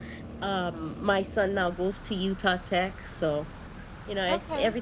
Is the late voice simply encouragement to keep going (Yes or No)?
Yes